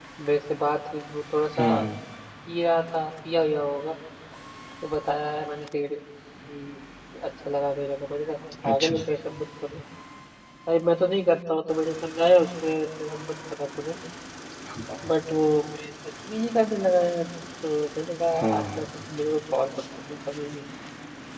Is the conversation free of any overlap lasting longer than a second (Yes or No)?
Yes